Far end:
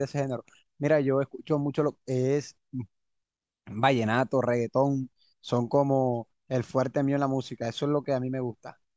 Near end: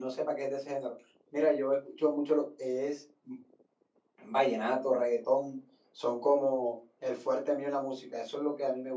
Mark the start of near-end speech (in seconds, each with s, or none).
none